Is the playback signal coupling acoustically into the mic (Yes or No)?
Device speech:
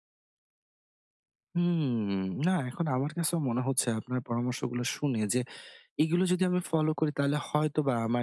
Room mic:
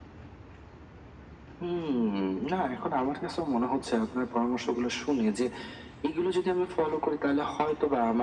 Yes